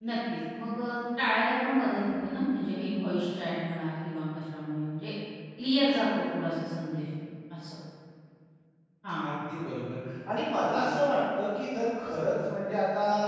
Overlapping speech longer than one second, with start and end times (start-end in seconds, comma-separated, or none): none